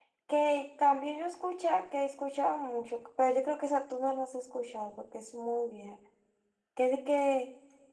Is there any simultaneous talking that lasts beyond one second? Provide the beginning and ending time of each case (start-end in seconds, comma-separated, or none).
none